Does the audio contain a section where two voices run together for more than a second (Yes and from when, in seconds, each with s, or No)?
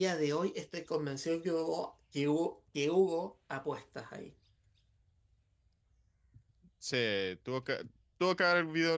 No